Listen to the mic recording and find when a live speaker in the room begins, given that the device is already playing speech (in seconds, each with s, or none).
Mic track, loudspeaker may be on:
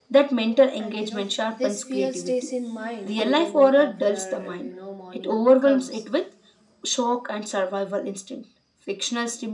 0.8 s